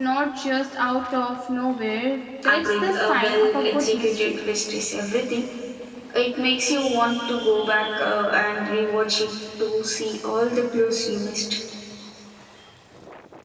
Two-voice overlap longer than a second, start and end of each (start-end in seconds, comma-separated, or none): 2.5-4.5